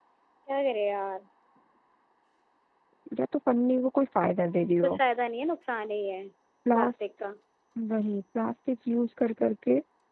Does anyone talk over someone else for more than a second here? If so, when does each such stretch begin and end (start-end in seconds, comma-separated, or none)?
none